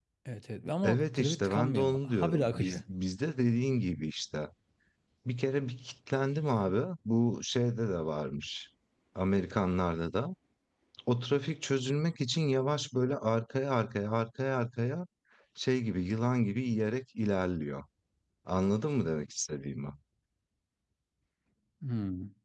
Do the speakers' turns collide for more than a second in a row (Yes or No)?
Yes